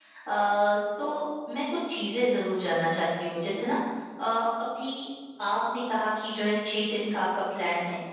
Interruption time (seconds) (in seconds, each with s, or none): none